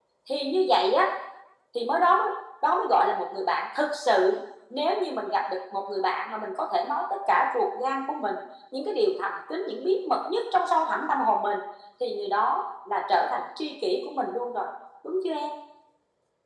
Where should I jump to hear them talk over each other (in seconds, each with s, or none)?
none